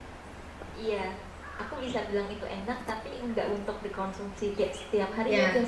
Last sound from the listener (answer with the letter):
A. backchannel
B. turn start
B